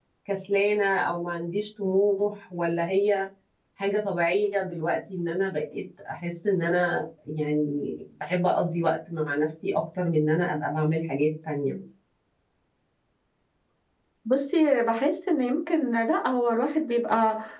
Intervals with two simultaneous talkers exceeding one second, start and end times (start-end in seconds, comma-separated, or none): none